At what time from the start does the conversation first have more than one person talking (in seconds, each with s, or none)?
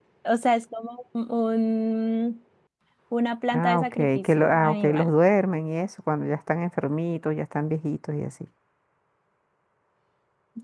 3.5 s